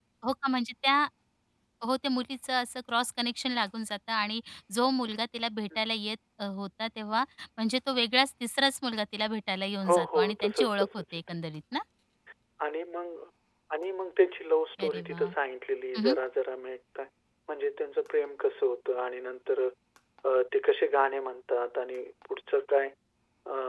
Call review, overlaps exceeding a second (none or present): present